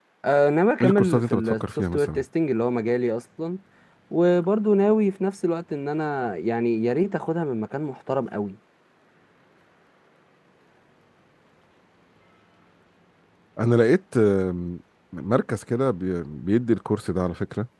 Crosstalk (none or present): present